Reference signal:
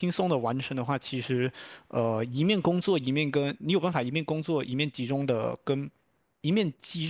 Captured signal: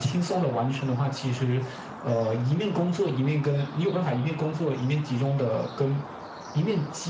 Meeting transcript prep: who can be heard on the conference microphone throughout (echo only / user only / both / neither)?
echo only